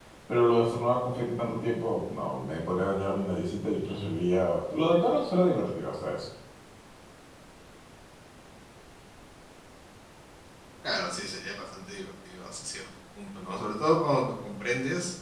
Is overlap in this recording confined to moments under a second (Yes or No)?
Yes